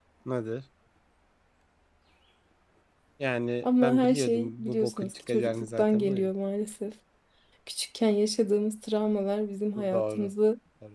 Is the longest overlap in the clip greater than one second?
Yes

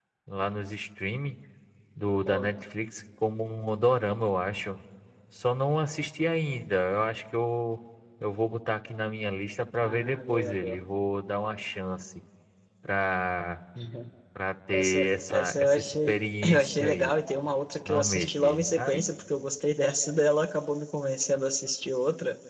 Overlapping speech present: Yes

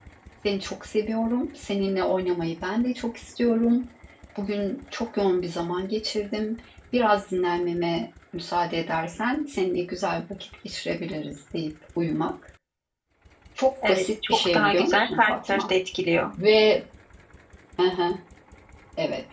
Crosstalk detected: Yes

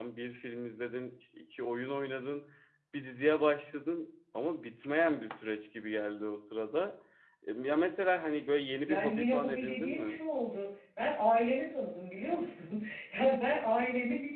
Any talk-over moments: Yes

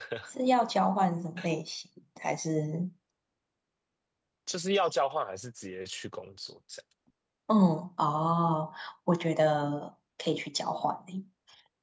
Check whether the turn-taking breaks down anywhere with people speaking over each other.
No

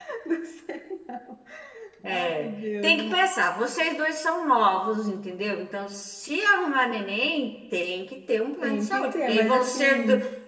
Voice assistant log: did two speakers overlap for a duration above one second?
Yes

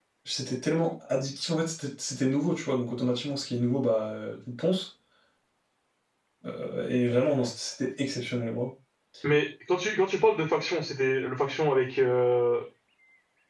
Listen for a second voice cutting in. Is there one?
No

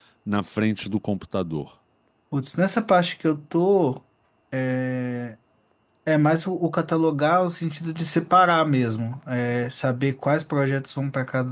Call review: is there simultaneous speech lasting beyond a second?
No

